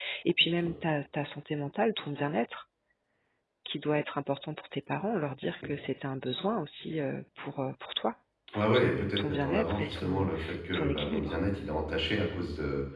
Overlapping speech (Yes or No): Yes